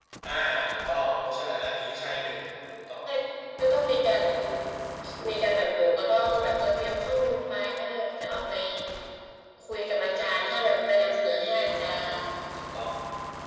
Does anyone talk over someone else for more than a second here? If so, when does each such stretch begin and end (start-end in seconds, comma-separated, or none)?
none